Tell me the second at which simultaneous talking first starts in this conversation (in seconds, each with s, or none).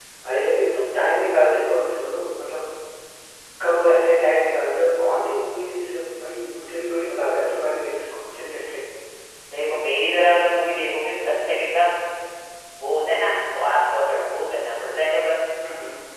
none